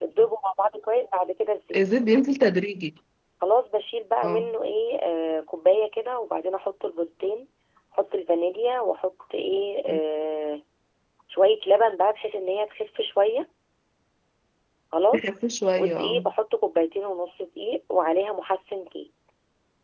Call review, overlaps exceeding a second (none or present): none